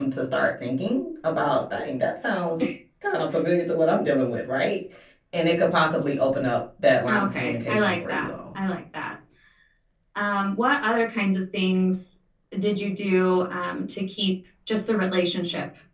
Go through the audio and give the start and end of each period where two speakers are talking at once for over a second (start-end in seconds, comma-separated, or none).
7.1-8.3